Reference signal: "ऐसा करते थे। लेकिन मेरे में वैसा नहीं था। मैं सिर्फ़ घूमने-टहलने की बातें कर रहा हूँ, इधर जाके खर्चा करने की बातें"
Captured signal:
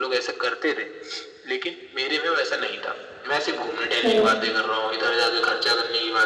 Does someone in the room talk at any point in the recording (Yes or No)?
Yes